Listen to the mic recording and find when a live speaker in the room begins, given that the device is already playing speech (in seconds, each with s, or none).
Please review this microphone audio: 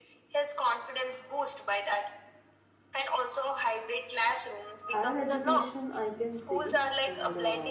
4.8 s